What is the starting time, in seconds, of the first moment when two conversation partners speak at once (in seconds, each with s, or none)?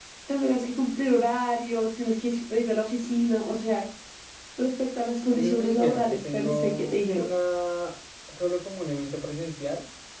5.3 s